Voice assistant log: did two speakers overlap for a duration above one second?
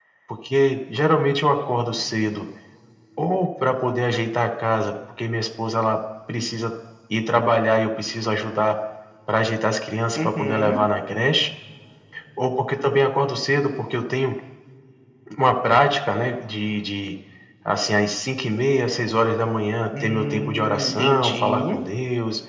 Yes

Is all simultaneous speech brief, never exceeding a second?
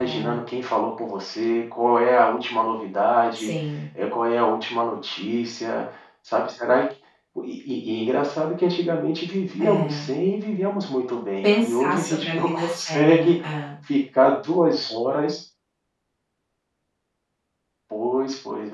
No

